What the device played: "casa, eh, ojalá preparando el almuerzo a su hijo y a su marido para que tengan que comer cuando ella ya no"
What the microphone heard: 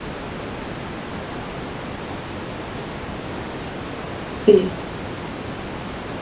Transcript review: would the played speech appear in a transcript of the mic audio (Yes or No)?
No